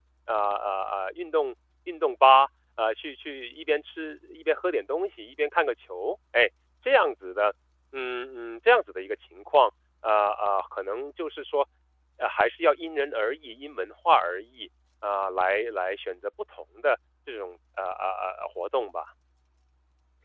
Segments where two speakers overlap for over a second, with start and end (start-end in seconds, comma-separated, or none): none